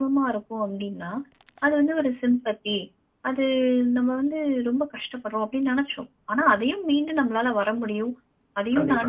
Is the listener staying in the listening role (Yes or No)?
Yes